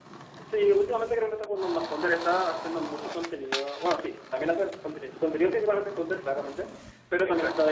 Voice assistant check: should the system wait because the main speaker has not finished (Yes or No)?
Yes